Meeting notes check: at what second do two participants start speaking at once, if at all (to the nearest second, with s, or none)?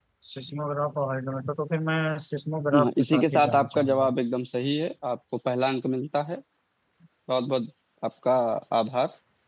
3 s